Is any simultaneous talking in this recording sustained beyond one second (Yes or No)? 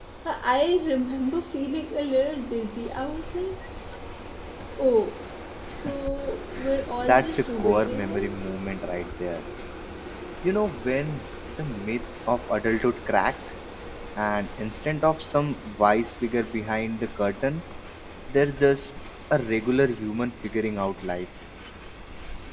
Yes